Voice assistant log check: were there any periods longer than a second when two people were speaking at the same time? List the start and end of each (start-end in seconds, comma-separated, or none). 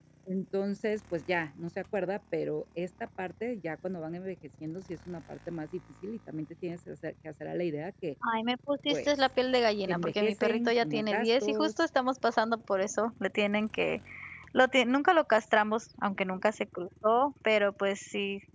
9.9-11.7